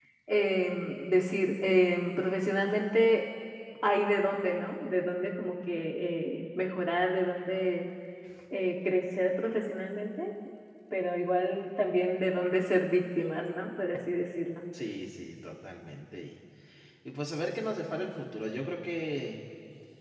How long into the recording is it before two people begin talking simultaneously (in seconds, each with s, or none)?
none